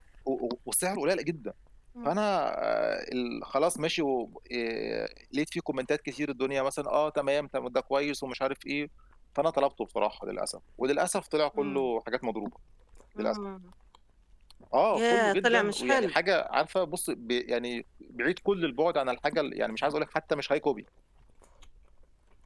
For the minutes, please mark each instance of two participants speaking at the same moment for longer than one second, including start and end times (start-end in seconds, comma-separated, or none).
14.9-16.1